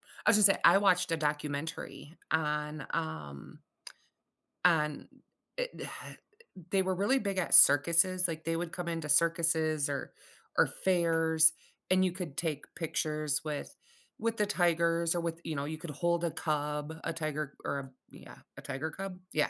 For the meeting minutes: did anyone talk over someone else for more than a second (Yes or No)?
No